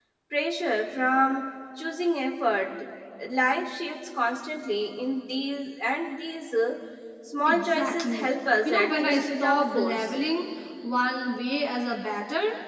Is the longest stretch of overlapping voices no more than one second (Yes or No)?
No